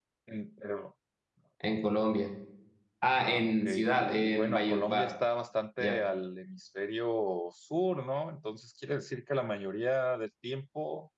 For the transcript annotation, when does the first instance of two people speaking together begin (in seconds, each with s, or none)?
3.2 s